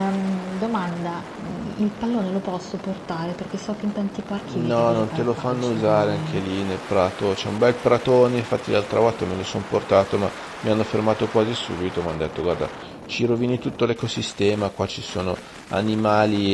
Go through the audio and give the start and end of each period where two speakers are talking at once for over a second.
4.5-6.4

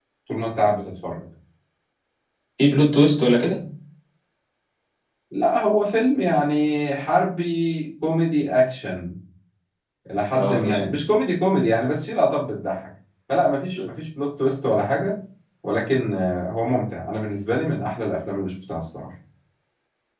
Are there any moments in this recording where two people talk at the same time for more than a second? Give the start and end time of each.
none

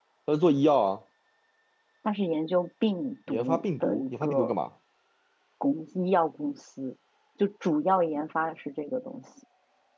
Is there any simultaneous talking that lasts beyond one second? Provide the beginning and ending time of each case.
3.3-4.5

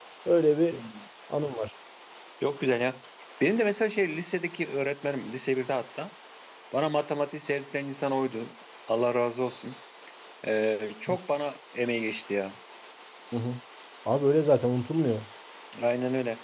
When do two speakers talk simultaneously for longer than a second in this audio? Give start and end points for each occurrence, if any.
none

